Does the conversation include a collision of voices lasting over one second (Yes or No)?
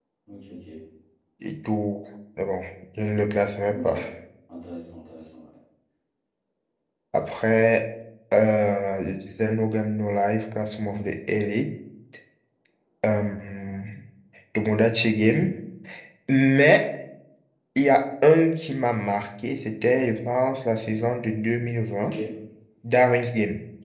No